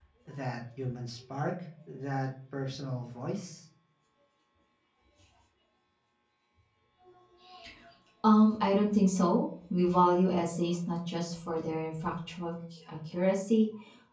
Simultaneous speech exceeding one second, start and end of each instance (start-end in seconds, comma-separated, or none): none